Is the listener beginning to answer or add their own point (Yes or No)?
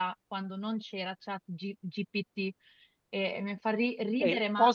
Yes